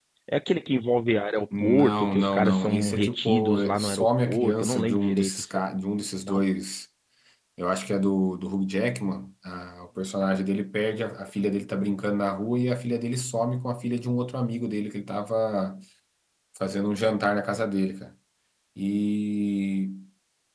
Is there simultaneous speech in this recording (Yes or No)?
Yes